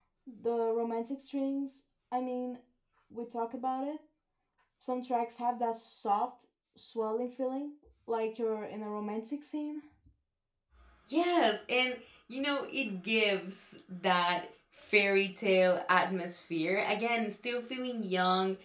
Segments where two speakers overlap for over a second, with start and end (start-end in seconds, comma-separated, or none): none